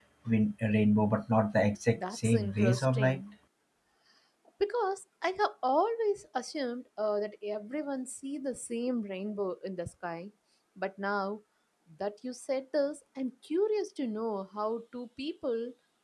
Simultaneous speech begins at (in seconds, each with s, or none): 1.9 s